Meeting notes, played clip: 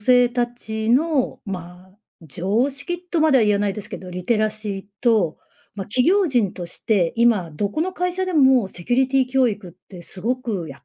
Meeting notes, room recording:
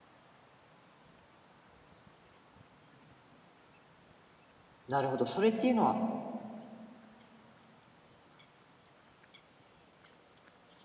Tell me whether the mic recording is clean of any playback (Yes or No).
Yes